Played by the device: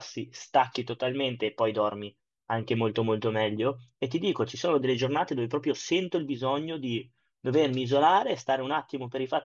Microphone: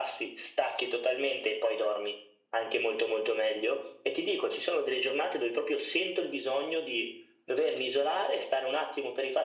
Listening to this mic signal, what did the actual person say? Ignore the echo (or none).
none